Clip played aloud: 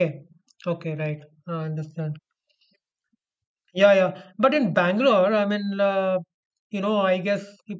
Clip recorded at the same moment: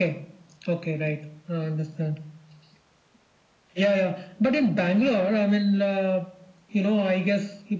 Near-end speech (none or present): none